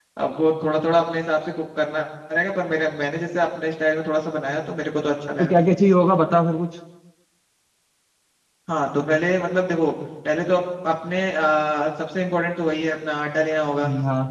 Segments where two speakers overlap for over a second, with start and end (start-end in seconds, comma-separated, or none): none